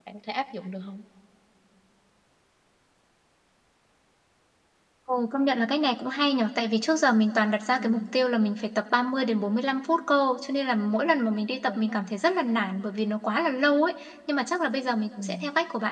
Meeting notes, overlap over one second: none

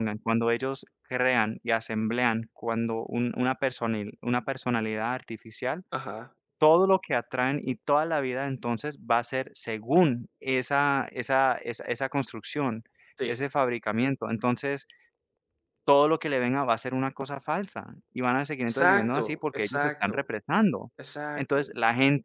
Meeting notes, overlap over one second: present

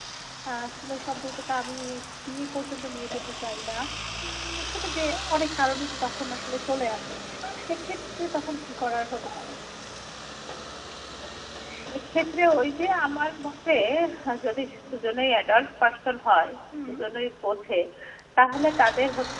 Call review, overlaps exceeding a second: none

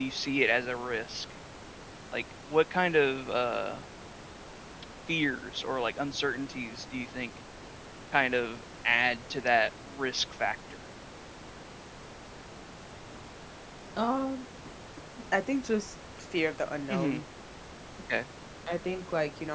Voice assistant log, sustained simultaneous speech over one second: none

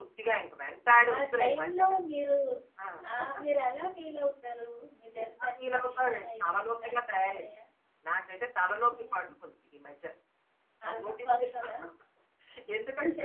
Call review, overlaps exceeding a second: present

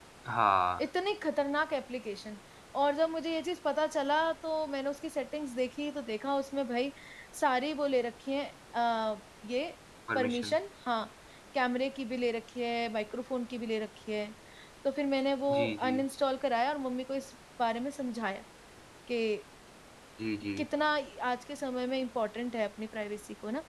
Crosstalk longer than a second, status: none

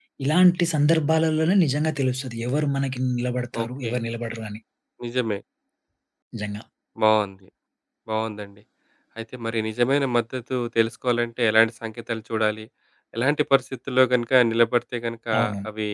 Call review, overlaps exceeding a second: none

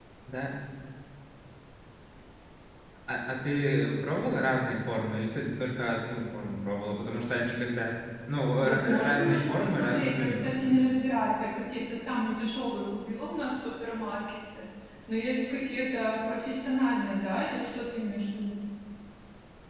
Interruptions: present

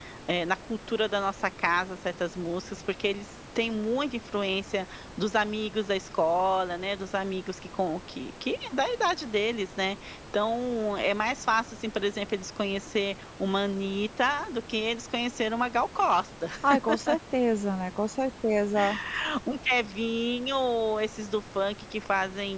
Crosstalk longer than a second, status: none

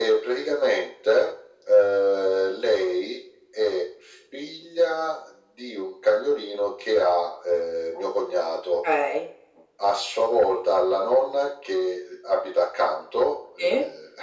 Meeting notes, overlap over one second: none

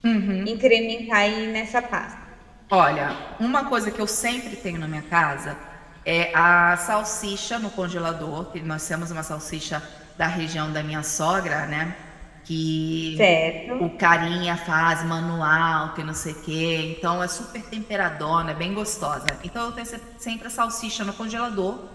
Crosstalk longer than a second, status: none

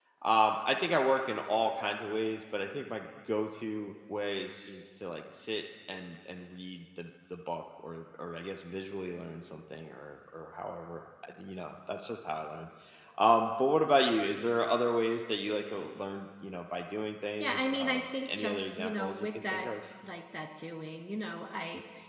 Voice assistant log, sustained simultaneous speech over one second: present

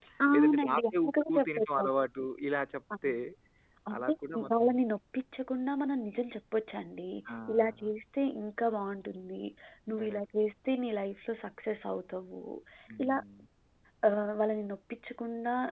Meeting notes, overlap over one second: present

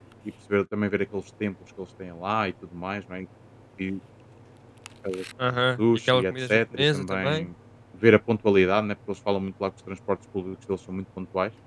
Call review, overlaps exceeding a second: present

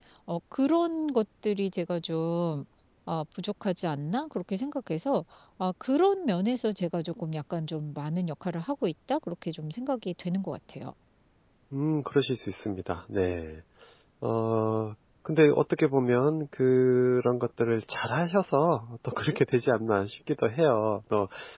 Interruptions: none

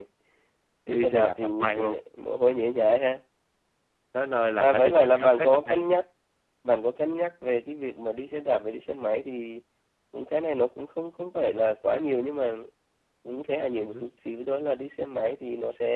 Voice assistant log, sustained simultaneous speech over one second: present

